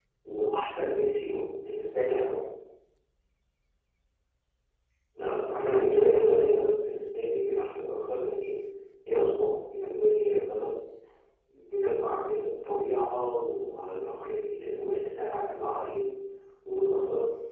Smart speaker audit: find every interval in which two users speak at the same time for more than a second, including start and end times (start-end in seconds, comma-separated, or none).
5.2-6.6